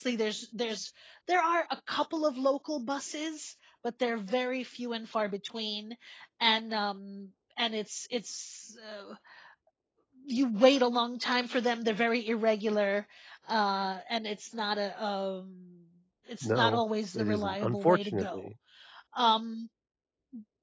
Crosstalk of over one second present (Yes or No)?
Yes